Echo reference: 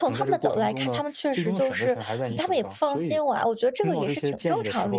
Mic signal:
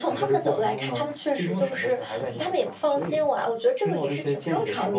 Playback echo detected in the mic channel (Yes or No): Yes